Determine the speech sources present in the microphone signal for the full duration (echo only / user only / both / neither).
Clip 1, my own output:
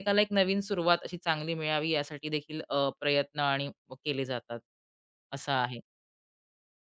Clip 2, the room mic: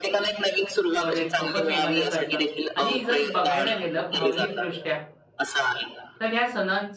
both